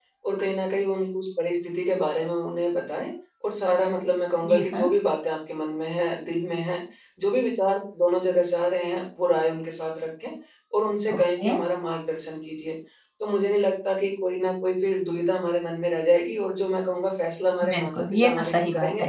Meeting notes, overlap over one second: present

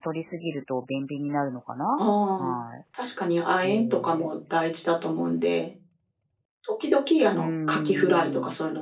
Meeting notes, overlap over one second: present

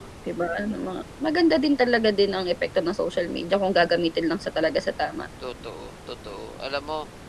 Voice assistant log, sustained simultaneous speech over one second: none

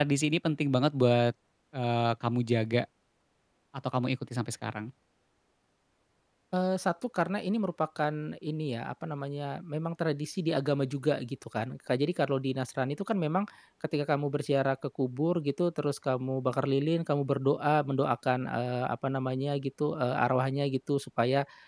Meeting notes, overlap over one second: none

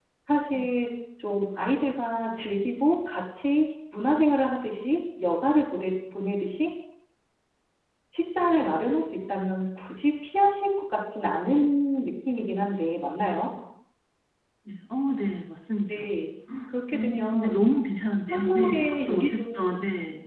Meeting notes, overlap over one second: present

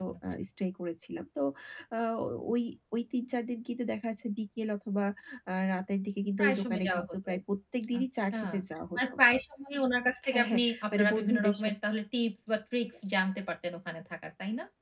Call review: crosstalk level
present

